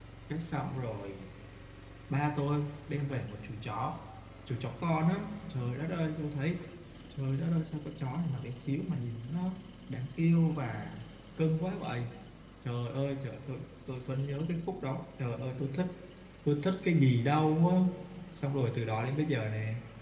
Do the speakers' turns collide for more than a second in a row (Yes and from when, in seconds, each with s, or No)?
No